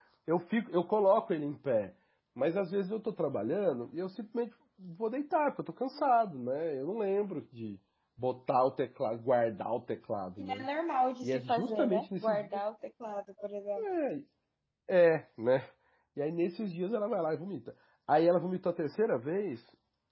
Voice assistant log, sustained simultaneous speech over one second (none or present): present